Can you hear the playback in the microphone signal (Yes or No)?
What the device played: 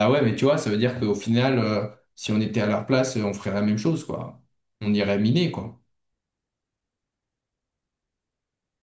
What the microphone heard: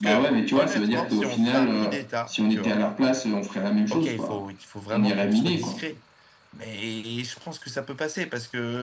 Yes